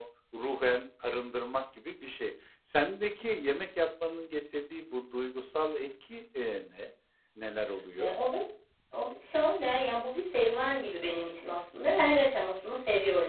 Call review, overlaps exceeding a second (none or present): none